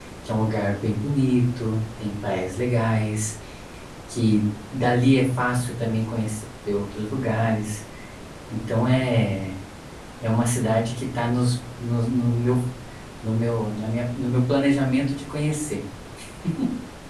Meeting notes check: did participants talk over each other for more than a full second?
No

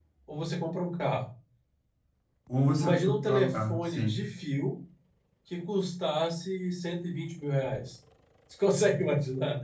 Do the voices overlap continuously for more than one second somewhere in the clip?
Yes, from 2.8 s

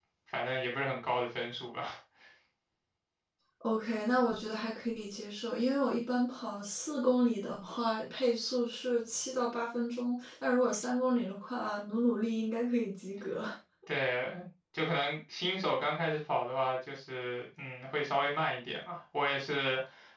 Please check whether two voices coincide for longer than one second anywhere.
No

